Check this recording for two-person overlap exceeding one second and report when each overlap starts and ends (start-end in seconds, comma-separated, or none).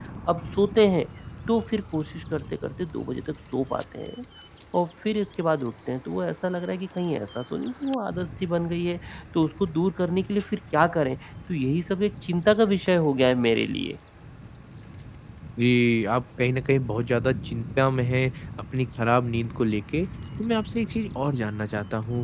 none